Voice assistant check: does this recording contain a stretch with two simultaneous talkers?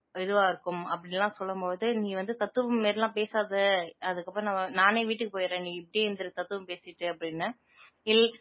No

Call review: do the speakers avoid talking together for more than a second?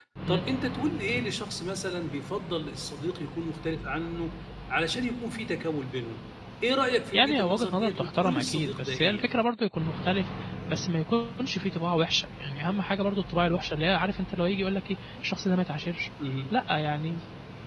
No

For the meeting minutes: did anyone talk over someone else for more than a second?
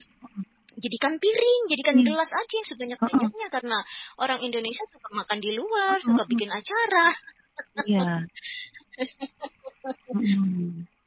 No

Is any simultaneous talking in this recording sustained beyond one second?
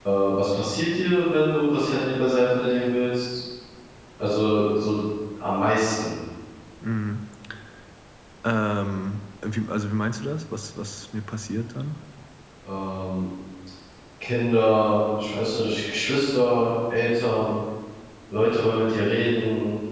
No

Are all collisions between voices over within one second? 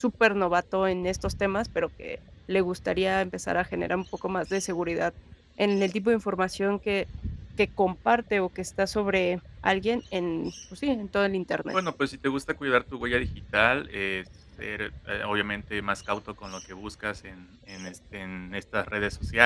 Yes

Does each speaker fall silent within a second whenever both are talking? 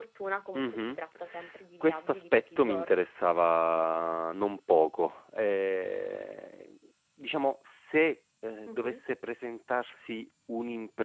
No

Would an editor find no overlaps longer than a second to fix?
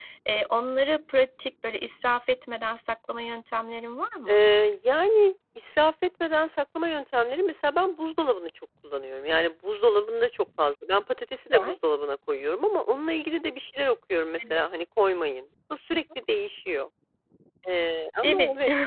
Yes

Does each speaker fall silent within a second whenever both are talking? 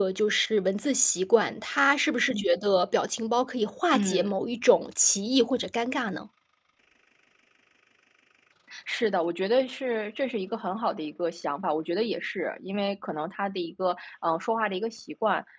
Yes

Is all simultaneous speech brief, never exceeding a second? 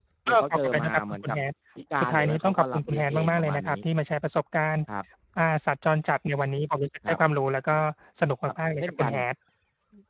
No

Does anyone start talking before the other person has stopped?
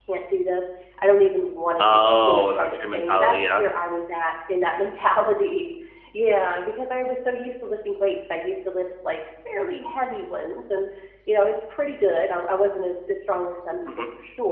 Yes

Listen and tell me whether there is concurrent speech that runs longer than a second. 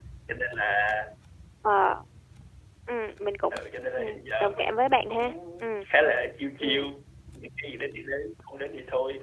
Yes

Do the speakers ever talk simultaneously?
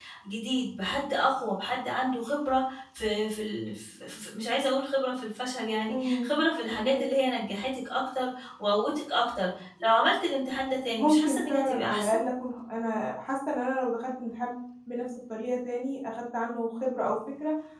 Yes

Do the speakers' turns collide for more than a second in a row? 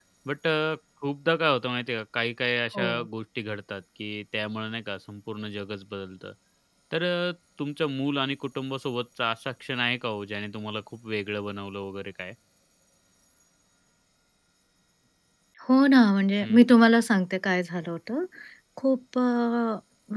No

